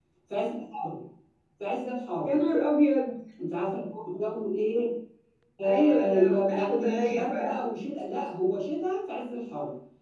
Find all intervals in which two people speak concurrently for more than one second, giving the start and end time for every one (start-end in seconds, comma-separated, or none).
5.6-7.5